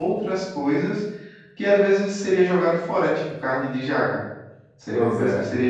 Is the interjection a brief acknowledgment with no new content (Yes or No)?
Yes